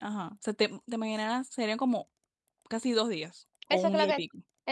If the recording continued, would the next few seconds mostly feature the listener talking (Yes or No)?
Yes